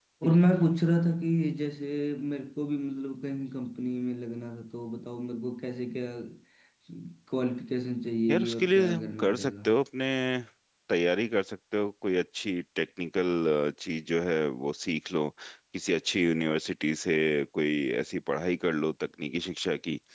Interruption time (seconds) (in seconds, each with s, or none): 8.3 s